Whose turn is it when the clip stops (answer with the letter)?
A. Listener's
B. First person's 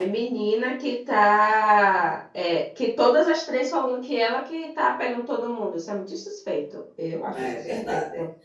A